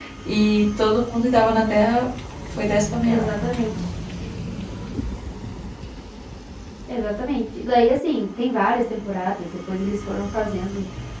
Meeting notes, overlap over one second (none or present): none